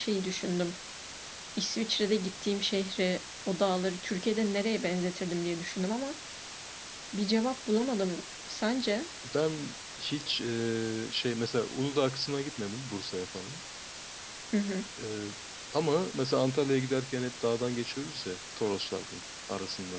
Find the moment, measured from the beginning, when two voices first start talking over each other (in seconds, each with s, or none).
none